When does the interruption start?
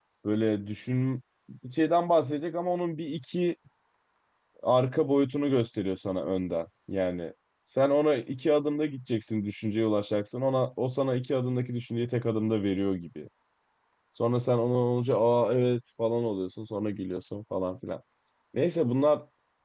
none

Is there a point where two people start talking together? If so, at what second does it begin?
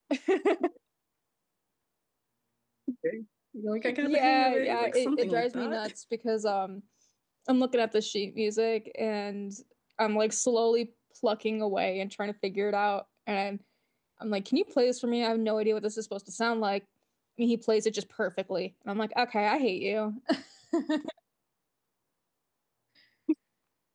3.8 s

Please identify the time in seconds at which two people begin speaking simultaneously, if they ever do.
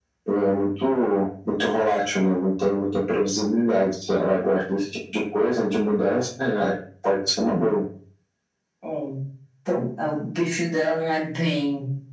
none

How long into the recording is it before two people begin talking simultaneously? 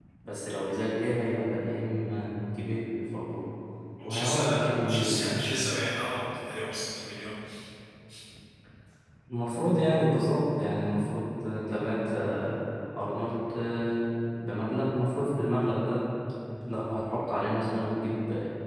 4.0 s

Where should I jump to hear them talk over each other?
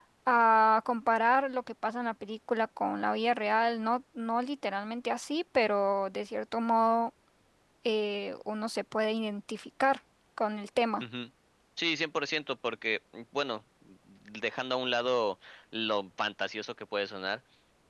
none

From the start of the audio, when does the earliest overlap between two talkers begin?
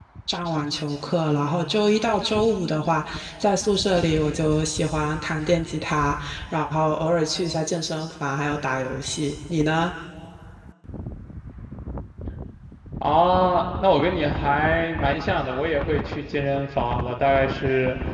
none

